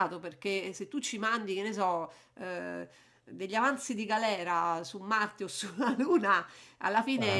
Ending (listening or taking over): listening